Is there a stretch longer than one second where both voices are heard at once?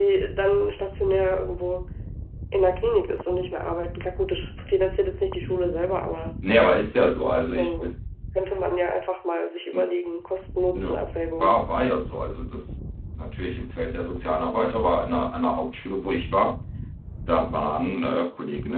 No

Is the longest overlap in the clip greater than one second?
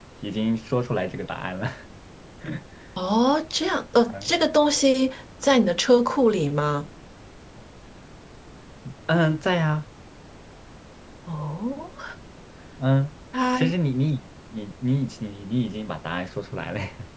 No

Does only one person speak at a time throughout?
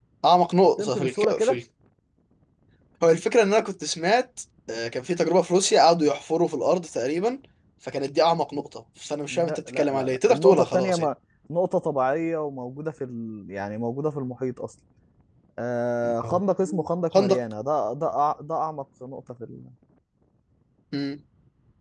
No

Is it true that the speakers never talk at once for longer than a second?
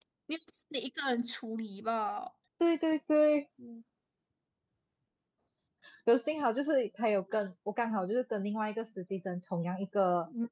Yes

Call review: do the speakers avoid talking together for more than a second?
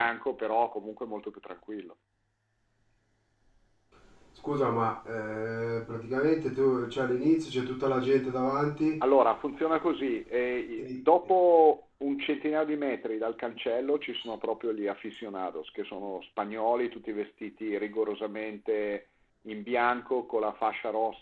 Yes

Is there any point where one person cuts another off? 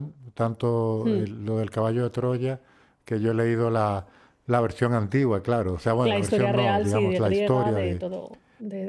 Yes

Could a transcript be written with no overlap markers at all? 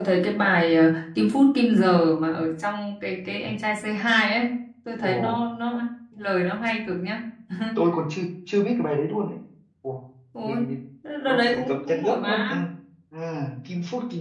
No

